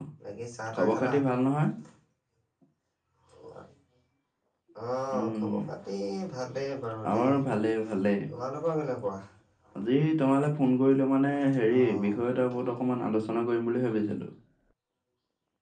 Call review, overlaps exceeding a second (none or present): none